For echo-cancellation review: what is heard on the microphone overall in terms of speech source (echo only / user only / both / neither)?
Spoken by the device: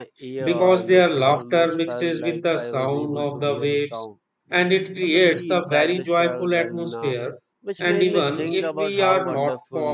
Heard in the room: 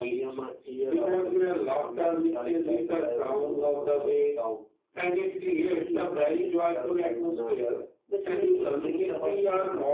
echo only